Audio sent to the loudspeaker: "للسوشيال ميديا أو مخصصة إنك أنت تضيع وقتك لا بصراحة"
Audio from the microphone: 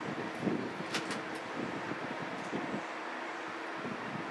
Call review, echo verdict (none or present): none